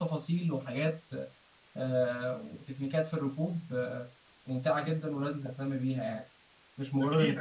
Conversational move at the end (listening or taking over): taking over